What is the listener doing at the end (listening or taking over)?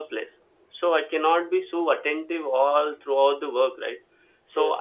listening